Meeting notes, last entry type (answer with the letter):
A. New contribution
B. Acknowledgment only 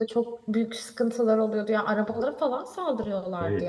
A